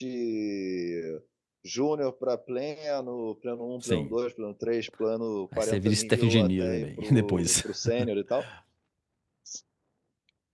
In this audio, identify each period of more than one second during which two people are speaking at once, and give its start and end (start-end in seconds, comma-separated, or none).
5.6-7.5